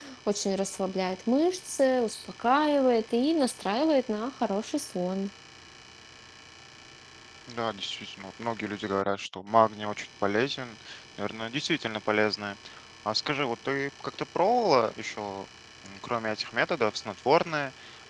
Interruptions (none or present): none